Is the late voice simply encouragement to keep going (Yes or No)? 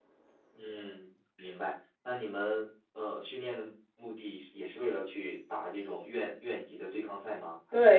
No